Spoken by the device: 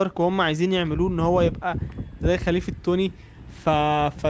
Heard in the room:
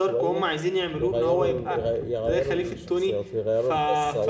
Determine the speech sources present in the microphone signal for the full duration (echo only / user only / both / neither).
both